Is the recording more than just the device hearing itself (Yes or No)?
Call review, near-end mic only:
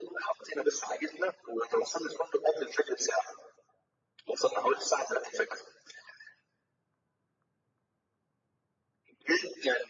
No